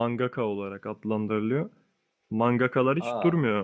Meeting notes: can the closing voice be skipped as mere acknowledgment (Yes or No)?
Yes